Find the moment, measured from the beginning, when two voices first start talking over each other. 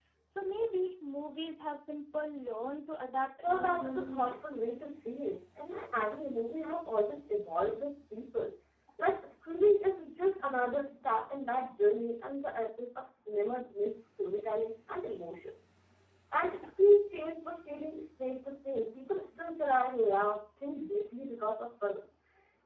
3.4 s

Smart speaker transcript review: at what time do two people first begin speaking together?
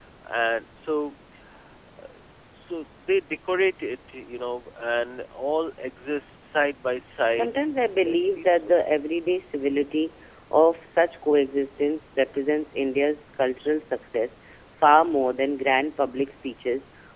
7.3 s

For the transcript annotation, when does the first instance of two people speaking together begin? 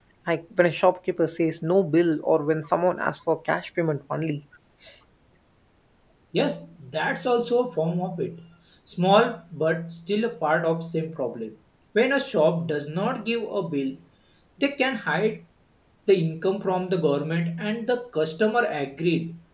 none

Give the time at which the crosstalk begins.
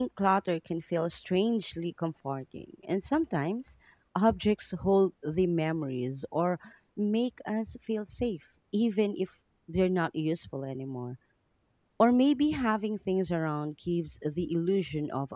none

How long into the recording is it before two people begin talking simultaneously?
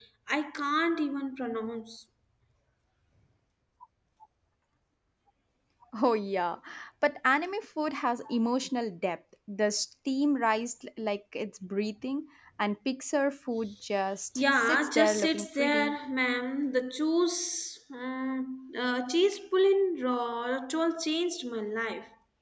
14.3 s

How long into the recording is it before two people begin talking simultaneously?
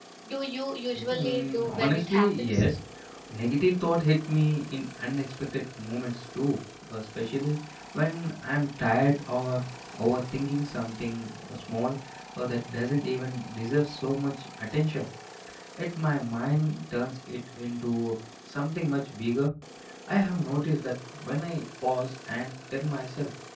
1.1 s

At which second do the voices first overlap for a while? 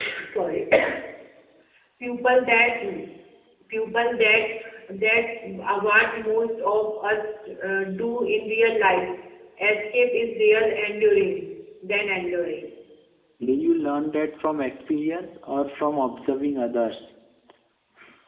none

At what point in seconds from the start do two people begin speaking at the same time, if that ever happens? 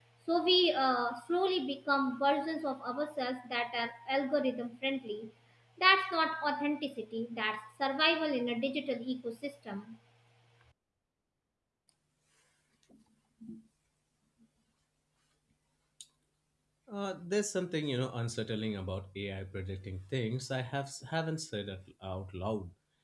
none

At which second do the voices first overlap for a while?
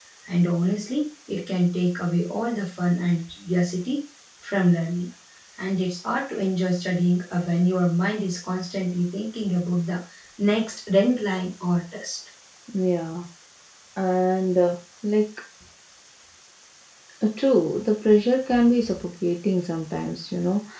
none

